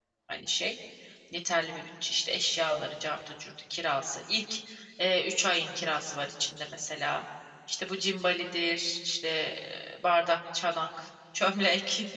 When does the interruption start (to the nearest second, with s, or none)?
none